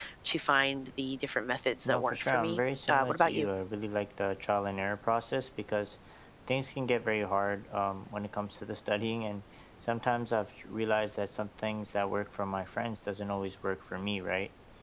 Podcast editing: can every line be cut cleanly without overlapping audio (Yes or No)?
No